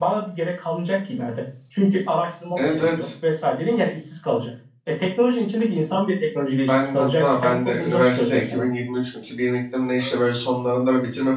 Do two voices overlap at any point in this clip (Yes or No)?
Yes